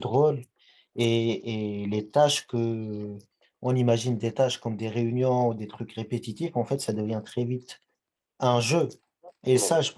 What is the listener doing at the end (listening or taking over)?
listening